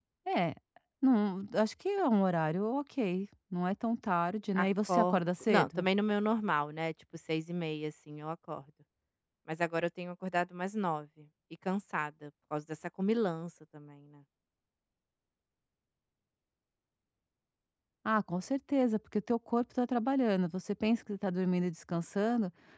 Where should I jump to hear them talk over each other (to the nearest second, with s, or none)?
5 s